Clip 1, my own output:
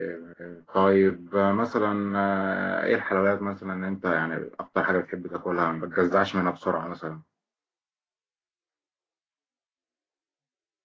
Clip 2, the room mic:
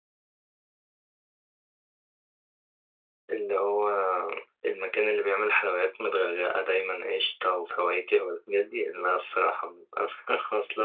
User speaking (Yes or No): Yes